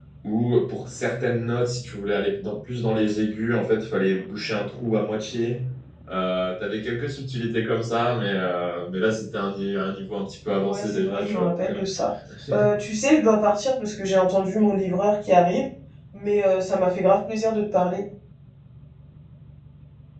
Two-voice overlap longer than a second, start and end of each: 10.6-11.8

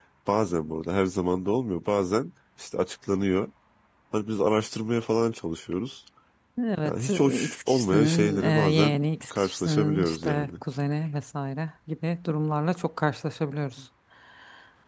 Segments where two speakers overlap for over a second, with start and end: 6.8-10.5

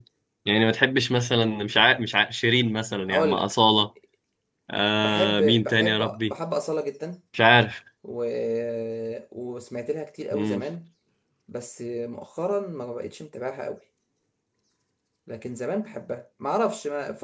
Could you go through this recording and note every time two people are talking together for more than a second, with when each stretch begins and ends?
5.0-6.3

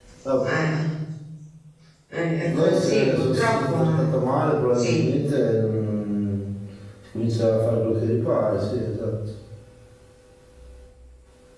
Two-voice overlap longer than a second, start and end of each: 2.5-4.1

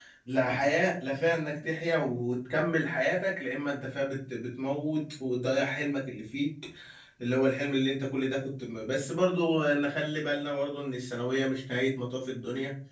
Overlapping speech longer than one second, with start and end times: none

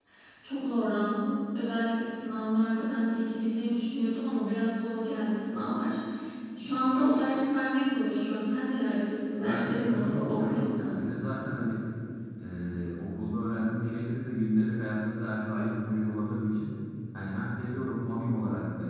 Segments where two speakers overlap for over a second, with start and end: 9.4-11.0

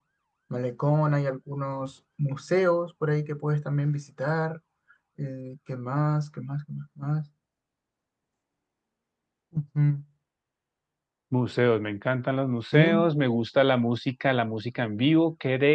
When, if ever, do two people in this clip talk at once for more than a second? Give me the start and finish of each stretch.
none

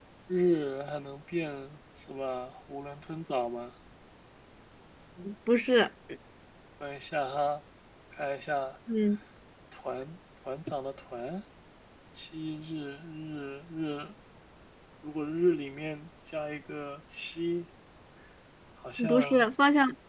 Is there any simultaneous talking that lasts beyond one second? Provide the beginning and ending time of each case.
none

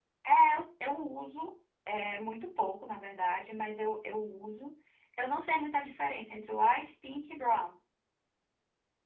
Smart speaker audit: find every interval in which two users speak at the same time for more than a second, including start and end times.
none

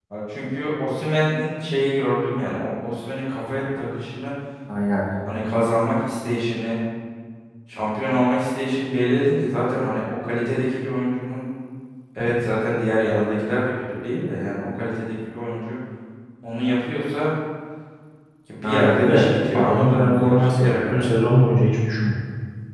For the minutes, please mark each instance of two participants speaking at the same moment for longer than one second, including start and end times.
18.6-21.0

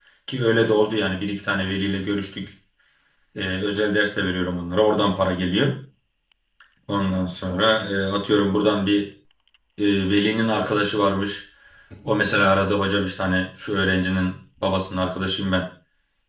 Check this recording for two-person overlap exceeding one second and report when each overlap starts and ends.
none

